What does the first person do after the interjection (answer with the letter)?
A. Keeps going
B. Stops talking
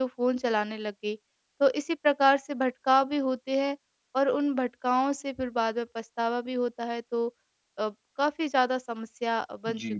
B